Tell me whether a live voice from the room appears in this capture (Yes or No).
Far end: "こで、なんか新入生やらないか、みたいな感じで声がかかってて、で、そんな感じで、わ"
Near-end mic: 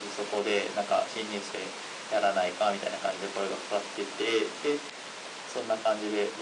No